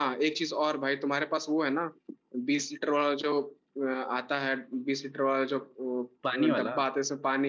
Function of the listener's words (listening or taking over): listening